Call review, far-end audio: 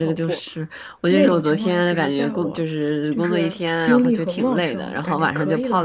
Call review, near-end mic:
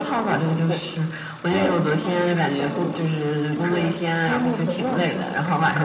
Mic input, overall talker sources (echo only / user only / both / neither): echo only